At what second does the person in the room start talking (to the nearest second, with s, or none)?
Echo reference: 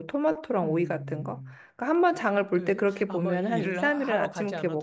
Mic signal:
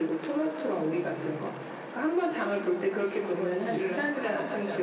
none